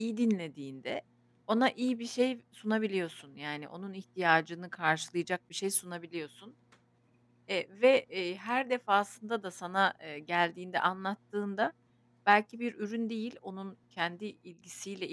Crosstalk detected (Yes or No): No